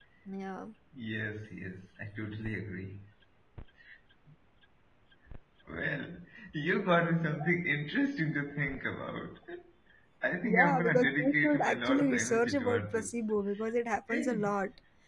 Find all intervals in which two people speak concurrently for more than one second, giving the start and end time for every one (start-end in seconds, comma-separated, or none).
10.4-13.1